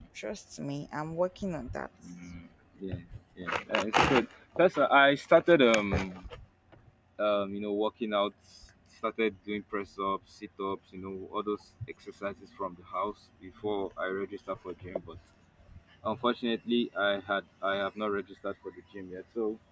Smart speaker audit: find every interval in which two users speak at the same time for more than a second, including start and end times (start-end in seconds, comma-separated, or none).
none